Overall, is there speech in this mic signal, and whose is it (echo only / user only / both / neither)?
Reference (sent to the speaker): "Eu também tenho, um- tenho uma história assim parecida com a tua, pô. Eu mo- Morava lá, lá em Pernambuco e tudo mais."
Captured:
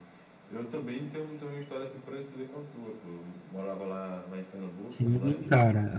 both